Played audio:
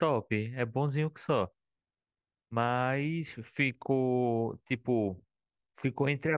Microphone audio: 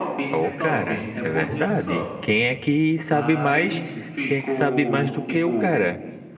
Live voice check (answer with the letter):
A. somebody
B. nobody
A